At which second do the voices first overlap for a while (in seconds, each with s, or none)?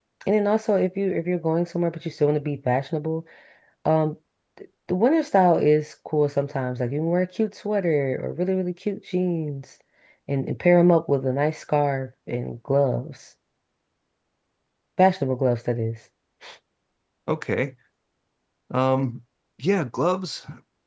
none